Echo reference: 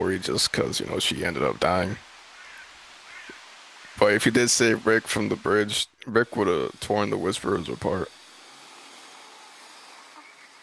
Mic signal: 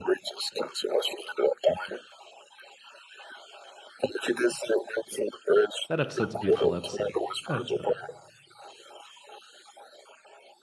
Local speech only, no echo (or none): That episode's a beautiful episode. That episode.